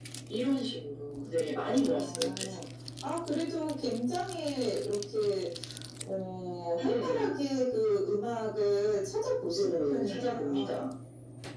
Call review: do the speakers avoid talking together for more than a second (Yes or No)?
No